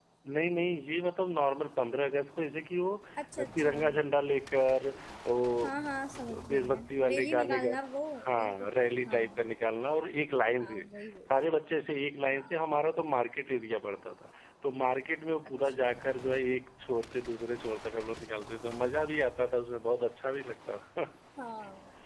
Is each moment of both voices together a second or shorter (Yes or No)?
No